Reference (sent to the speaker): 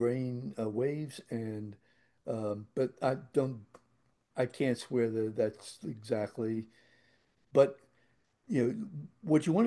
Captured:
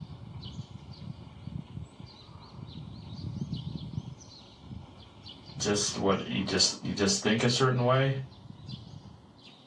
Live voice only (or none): just what you just you just think a certain way.